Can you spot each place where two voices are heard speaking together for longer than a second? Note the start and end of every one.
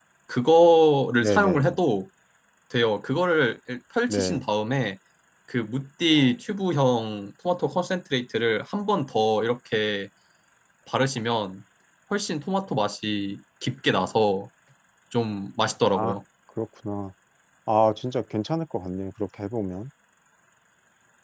none

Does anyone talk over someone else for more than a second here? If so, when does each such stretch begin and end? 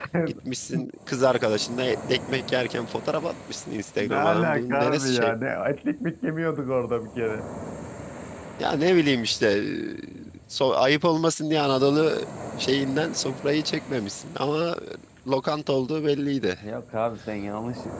4.0-5.3

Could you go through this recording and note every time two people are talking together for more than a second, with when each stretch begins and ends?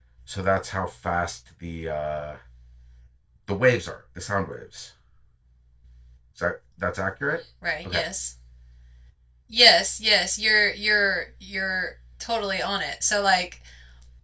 none

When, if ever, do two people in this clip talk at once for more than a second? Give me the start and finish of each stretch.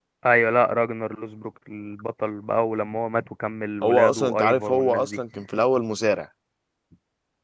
3.8-5.2

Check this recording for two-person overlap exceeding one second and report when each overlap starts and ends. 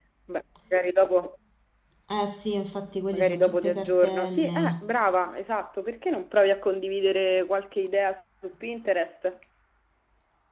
3.1-4.8

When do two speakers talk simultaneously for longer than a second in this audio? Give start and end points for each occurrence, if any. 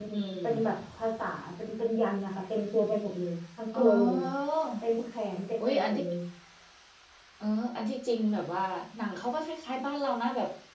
none

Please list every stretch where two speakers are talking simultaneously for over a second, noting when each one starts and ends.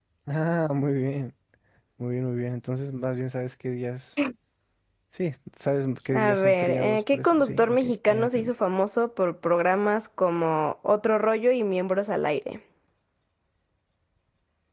6.1-8.5

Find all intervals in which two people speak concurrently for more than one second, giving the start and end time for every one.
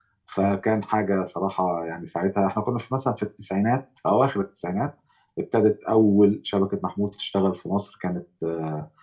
none

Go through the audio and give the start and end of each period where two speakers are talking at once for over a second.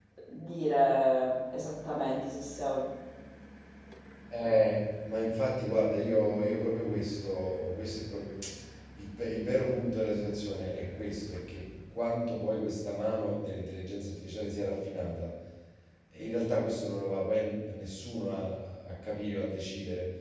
none

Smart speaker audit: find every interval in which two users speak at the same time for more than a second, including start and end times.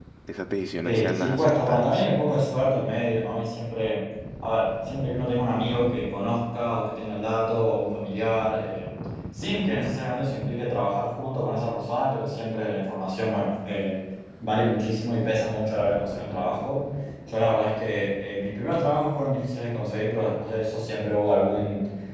0.8-2.0

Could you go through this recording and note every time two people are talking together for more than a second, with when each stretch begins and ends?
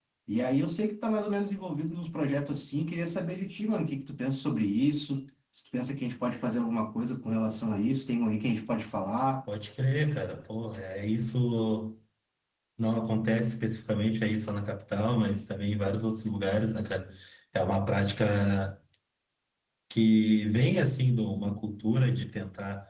none

